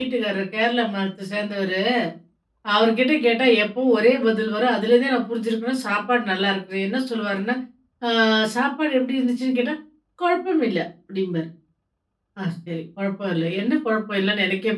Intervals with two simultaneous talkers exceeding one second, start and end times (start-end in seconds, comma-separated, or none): none